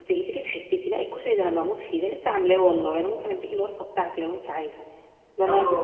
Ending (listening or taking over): taking over